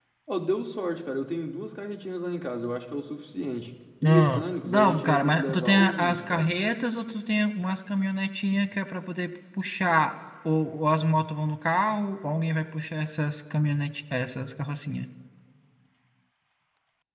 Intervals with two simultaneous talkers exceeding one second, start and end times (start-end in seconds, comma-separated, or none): 4.0-6.5